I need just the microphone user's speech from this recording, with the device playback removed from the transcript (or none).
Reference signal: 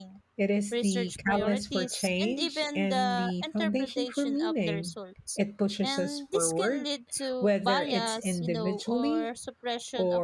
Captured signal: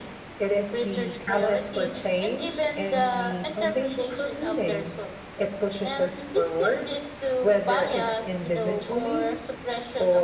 none